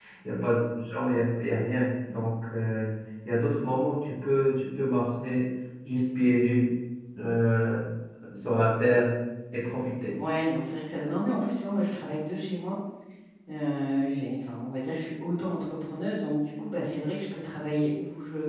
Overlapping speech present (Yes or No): No